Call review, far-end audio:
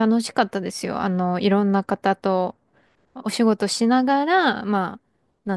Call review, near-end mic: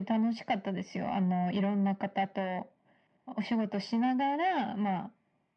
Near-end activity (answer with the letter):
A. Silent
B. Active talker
A